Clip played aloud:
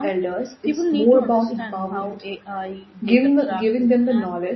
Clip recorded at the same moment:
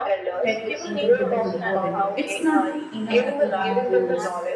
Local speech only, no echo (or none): tech incredibly important. It's not enough to have rules.